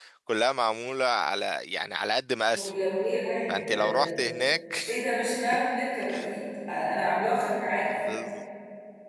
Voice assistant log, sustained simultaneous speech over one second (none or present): none